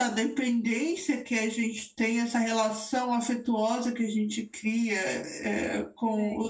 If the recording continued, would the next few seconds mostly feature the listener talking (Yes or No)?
No